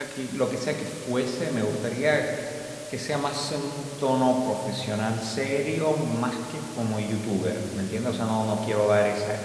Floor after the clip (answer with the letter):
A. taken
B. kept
B